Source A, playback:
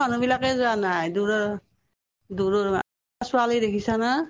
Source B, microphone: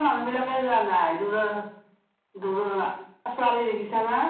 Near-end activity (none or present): none